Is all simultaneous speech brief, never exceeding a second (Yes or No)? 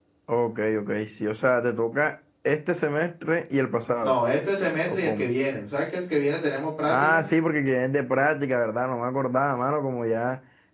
Yes